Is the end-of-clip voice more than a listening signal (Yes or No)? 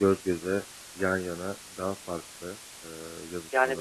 Yes